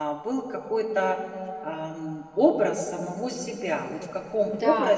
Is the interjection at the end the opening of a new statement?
No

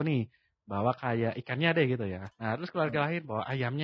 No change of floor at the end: Yes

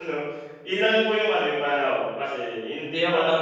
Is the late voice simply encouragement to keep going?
No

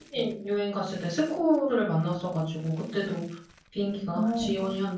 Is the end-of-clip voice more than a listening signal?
No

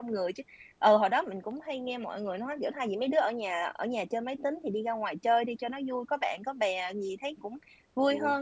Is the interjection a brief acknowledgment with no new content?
Yes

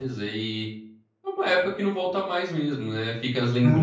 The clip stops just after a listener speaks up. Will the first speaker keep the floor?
Yes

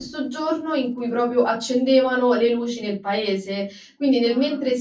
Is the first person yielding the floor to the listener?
No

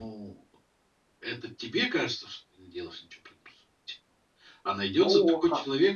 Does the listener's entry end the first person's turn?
No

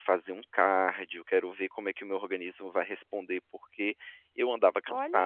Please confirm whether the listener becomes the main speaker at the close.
Yes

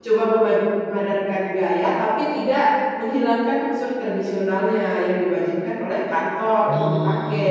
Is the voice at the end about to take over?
Yes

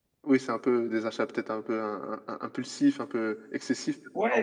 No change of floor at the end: No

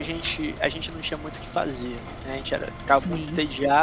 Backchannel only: Yes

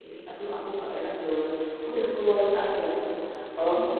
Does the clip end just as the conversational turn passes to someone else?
No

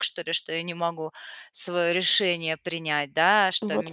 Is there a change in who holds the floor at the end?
No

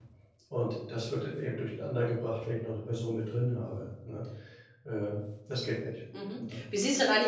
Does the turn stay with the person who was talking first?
No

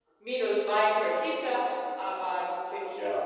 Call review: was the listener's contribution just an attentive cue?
No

